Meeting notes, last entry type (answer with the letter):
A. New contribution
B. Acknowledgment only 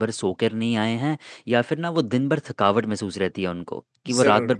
B